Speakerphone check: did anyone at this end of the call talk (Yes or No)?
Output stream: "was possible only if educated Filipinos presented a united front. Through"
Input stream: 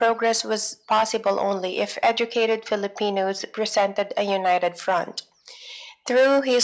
No